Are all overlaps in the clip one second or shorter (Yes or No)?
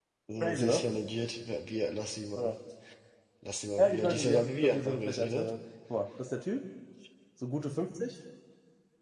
No